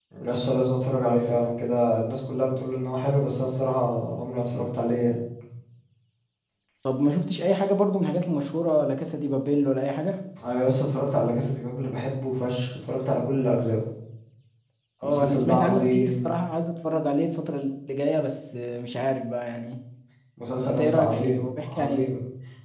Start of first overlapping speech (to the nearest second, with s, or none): 15 s